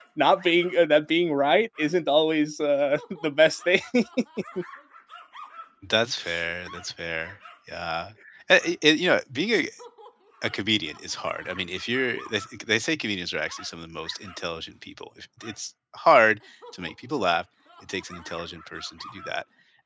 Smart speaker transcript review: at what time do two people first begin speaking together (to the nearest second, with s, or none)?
none